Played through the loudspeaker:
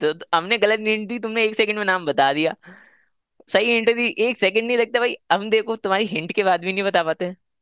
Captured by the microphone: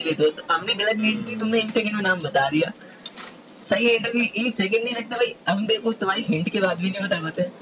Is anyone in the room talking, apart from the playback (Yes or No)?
Yes